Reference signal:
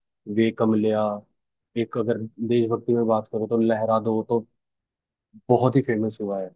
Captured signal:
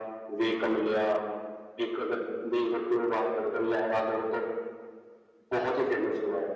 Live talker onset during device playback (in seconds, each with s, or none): none